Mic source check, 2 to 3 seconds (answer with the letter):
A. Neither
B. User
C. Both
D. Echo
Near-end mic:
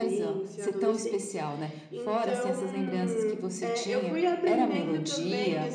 C